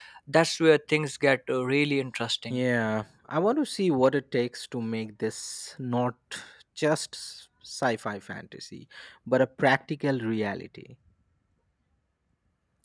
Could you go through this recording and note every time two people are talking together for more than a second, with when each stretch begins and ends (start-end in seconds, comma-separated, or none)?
none